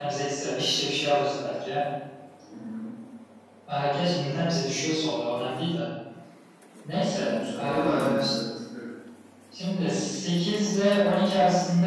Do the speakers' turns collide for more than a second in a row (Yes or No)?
Yes